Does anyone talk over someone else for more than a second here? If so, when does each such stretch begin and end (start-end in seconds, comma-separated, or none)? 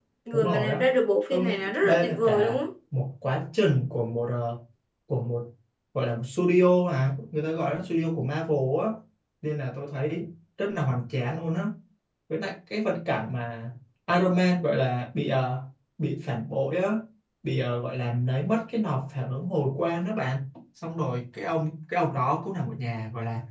1.3-2.6